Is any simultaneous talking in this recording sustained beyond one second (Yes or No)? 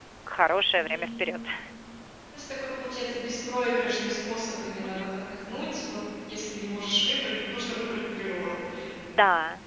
No